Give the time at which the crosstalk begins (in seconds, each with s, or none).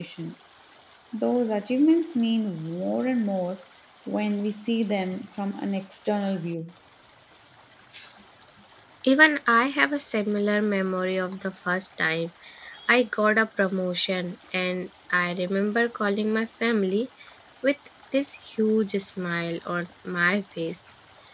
none